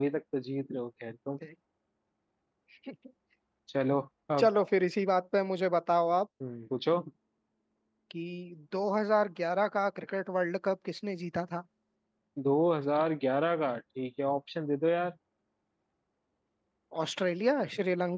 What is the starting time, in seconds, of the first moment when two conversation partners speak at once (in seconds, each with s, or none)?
none